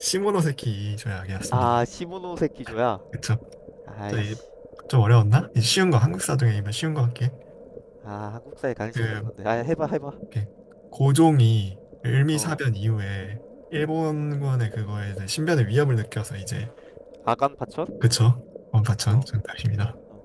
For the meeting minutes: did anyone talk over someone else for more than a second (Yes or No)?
No